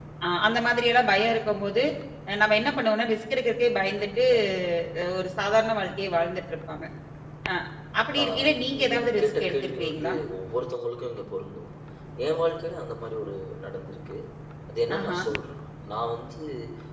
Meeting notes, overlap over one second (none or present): present